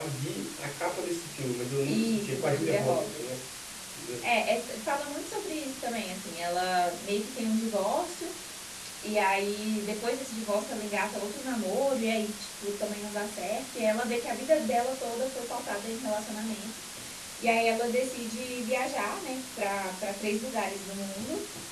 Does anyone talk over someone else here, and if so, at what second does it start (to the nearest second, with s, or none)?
2 s